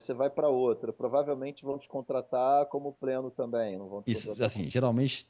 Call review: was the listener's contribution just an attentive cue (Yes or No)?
No